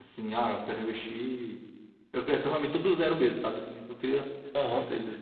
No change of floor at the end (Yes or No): No